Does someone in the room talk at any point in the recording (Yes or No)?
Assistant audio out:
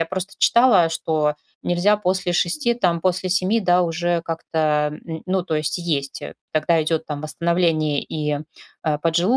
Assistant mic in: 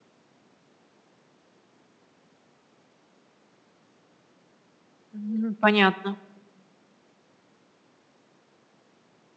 Yes